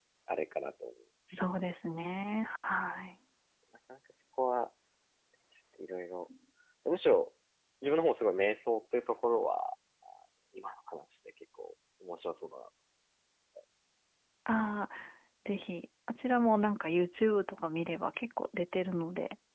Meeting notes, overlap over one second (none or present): none